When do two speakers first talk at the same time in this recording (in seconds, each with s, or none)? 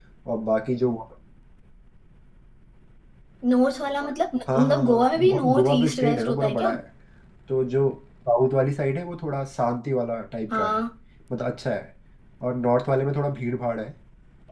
4.5 s